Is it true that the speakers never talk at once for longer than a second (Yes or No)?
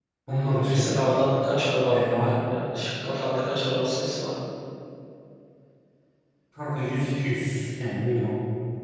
Yes